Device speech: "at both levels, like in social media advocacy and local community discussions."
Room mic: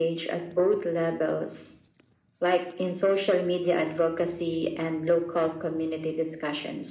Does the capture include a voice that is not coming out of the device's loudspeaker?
No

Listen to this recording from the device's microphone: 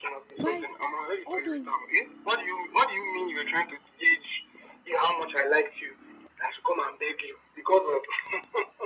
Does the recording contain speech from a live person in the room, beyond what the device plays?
Yes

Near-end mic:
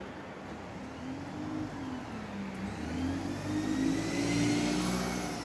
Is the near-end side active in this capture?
No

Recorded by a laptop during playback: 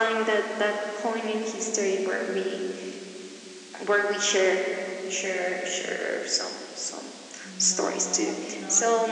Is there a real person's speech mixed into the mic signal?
Yes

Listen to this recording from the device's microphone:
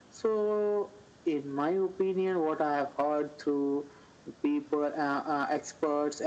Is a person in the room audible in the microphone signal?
No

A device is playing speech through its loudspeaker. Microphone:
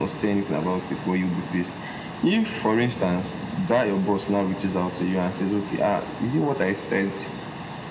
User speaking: No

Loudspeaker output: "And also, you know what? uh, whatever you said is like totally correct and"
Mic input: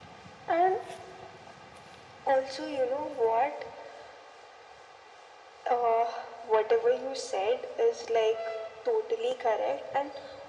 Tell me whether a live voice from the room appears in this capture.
No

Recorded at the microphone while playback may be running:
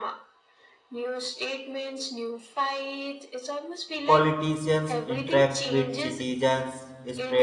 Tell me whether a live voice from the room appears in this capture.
Yes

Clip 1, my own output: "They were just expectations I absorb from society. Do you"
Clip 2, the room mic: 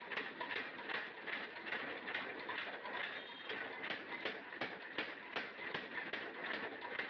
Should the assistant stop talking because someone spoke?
No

